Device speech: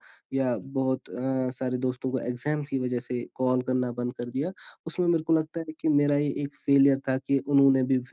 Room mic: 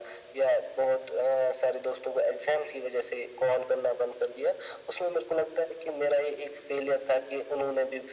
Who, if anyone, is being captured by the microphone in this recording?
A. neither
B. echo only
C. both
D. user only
B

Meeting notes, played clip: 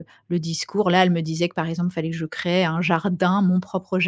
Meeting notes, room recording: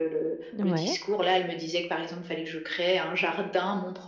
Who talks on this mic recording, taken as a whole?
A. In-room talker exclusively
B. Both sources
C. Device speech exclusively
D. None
B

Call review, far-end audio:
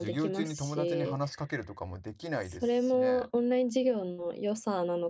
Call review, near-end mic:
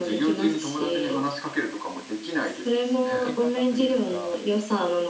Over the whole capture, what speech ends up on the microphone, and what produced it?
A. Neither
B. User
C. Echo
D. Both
D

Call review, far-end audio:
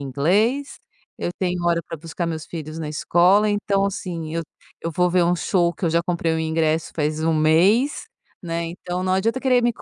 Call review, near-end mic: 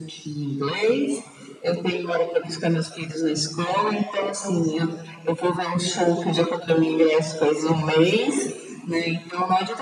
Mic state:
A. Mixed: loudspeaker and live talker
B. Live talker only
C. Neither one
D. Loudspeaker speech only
D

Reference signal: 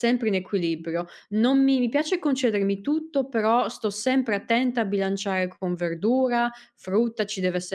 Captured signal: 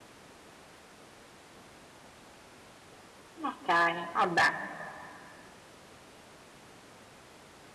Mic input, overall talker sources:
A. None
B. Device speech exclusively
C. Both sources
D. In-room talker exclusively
D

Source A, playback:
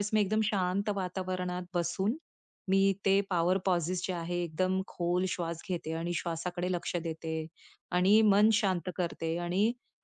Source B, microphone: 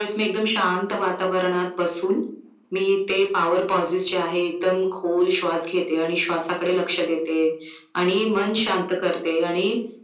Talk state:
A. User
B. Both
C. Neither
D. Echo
D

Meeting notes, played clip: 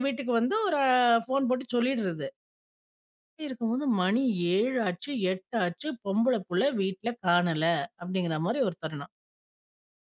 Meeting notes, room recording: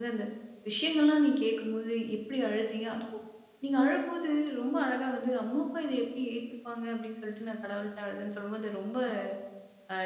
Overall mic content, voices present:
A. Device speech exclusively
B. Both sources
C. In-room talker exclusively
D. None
C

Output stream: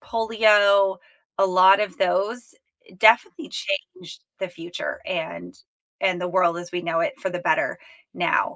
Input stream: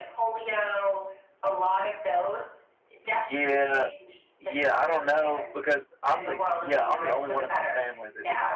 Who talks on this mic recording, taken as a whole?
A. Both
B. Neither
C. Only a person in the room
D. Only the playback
A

